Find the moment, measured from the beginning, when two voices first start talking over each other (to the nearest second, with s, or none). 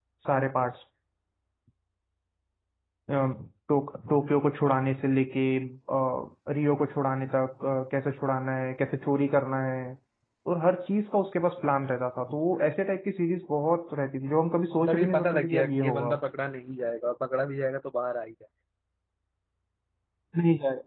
15 s